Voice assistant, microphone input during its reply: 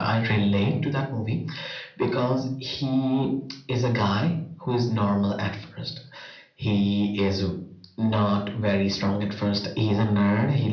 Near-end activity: none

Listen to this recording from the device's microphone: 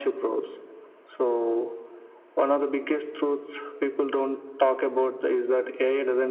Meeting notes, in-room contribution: none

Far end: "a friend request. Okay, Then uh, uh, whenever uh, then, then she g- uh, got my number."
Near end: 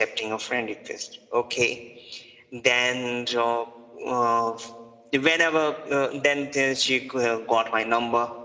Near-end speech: none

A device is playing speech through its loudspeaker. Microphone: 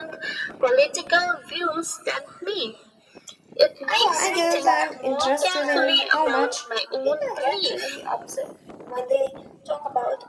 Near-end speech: present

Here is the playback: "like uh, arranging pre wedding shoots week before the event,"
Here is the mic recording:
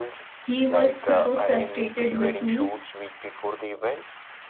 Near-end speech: present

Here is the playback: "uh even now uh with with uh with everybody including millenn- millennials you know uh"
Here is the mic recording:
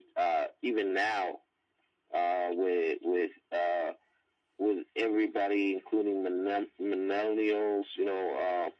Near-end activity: none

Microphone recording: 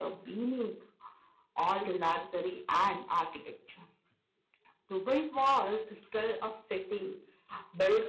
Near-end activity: none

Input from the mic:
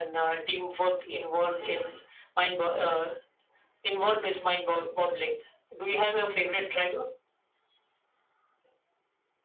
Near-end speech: none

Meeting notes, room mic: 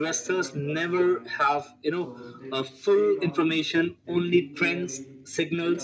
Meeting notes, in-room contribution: present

